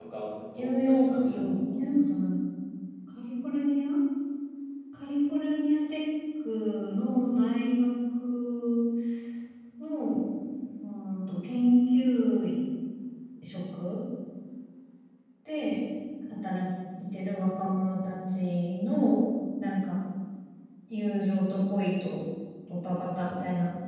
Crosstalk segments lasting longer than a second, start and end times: 0.6-1.8

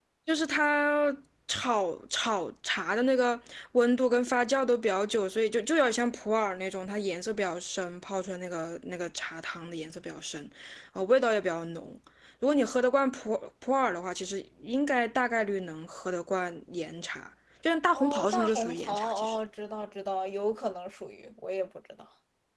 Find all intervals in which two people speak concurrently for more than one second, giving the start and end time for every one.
17.9-19.4

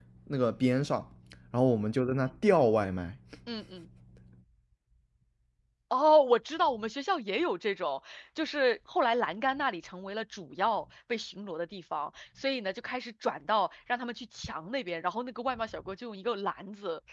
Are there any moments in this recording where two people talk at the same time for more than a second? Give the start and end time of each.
none

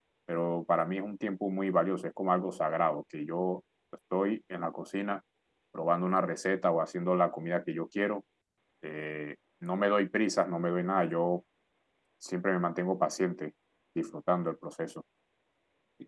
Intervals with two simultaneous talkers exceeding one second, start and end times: none

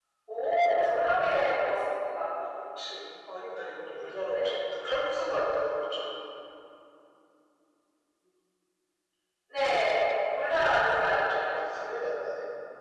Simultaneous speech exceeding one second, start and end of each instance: 10.4-11.6

